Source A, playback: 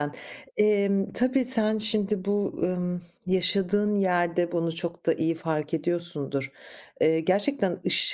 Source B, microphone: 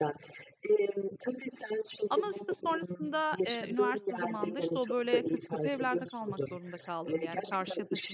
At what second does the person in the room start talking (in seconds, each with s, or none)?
2.1 s